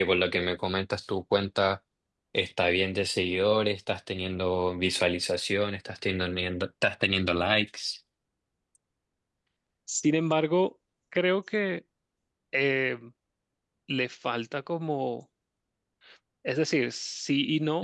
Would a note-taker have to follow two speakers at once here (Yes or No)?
No